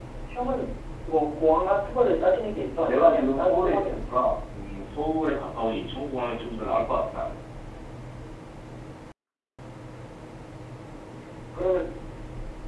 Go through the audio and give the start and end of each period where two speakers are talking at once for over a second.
2.8-4.2

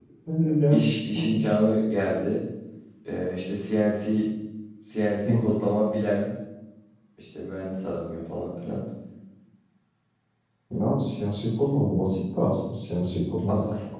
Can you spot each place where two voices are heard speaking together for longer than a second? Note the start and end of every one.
none

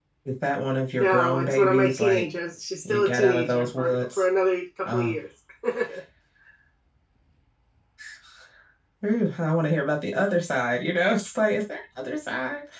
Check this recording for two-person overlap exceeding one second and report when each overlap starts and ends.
1.0-2.2, 2.9-4.2

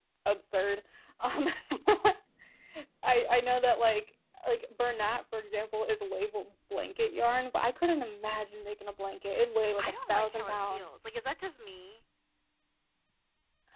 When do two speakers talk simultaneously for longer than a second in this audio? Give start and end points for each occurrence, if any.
9.8-11.0

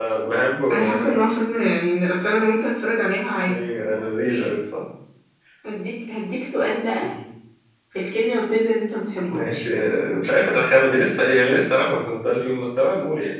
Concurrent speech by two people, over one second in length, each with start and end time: none

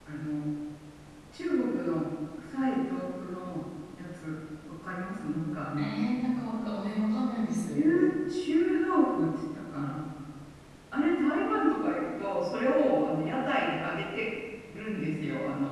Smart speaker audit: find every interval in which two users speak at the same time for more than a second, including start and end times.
none

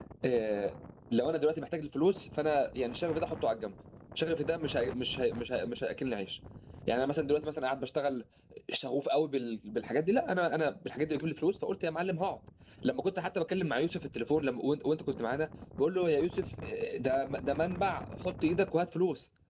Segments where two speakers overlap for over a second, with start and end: none

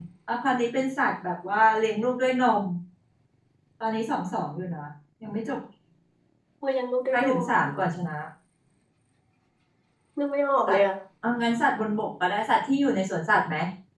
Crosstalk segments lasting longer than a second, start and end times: none

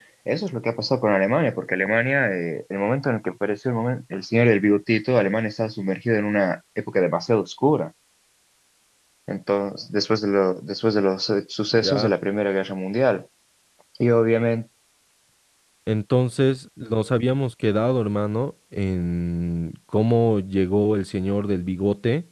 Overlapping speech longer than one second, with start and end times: none

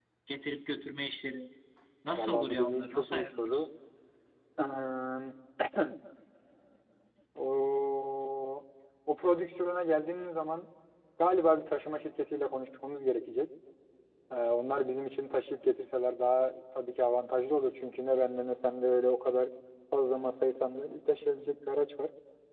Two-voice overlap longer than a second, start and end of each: 2.2-3.6

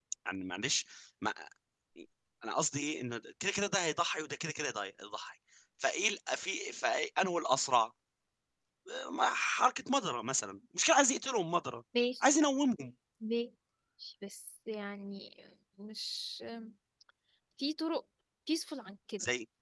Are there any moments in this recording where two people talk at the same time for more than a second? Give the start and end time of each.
none

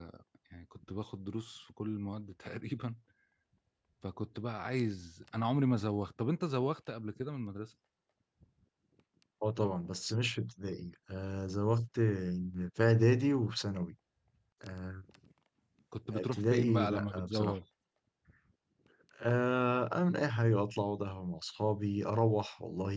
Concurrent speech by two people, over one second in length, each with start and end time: 16.1-17.6

